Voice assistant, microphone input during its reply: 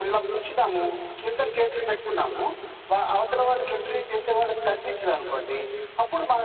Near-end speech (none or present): none